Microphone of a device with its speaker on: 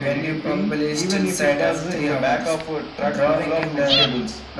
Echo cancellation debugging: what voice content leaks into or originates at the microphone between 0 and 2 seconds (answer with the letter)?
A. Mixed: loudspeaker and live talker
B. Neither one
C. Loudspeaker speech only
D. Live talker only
C